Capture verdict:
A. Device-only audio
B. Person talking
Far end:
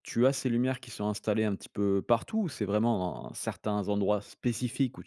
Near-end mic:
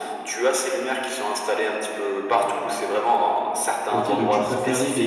B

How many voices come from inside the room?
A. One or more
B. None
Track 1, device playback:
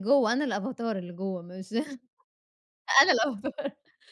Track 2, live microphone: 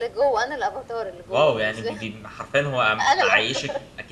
A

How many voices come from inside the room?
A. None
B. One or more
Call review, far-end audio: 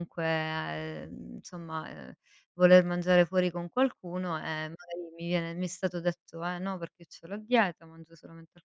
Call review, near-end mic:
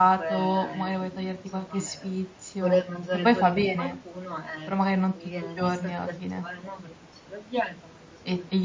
B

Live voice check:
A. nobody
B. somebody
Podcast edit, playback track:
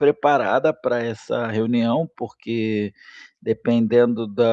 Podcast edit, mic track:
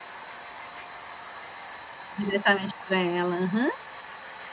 B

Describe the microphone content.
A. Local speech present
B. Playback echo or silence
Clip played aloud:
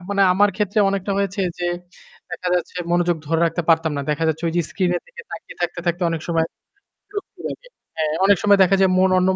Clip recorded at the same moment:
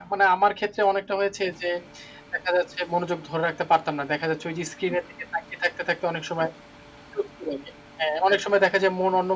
B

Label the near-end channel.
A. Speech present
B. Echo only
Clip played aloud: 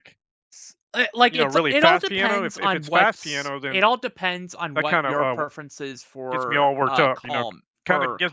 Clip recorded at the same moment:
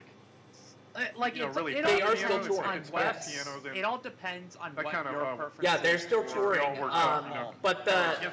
A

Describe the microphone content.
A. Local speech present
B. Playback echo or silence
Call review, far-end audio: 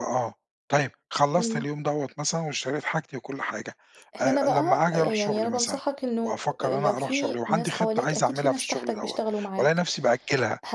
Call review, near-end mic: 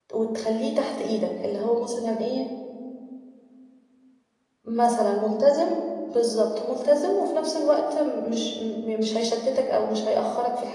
A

